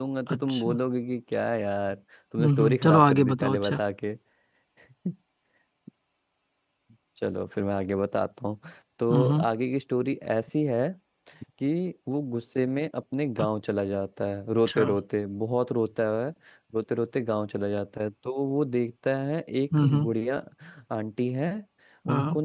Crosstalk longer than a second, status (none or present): present